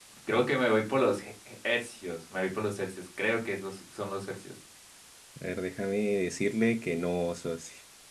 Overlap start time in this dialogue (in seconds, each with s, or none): none